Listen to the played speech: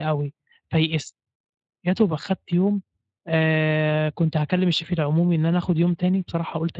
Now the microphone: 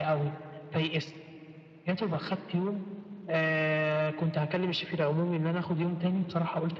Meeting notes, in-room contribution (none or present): none